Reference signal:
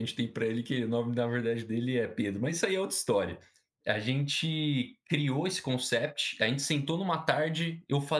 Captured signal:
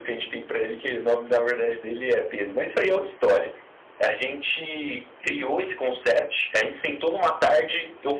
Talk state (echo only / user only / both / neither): echo only